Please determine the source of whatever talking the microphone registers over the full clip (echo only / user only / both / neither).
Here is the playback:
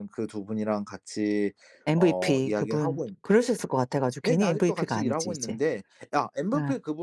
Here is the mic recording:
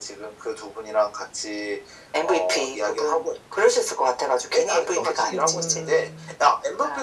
both